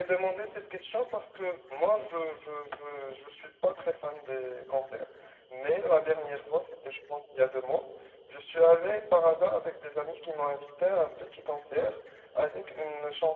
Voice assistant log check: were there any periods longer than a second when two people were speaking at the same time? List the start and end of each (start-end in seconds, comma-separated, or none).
none